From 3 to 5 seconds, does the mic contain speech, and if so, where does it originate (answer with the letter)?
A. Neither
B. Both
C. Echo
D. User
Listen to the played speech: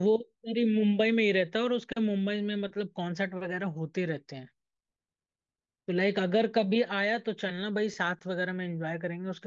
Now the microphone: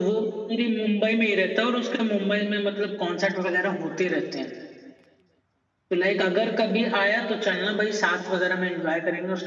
C